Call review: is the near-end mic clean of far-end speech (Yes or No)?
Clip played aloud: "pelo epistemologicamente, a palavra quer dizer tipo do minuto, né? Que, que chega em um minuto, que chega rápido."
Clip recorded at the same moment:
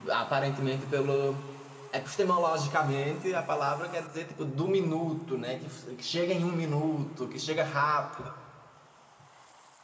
No